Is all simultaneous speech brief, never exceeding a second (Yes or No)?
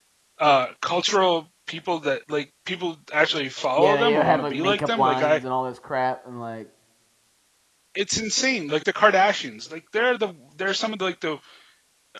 No